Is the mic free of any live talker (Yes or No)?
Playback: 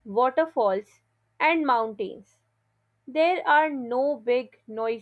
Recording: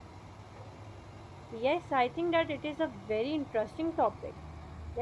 No